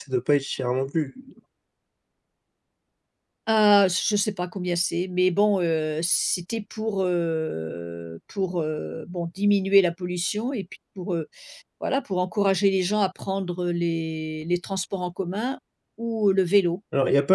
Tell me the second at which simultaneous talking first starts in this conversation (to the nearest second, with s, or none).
none